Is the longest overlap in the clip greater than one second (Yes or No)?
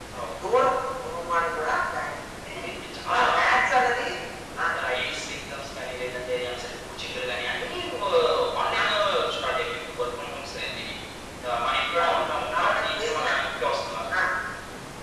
Yes